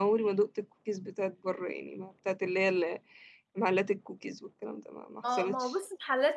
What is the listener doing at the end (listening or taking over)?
taking over